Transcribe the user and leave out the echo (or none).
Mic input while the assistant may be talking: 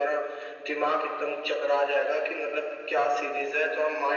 none